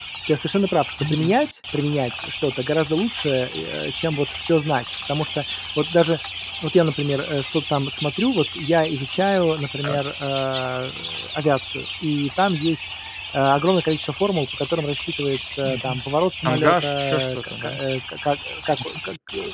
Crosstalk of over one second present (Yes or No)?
Yes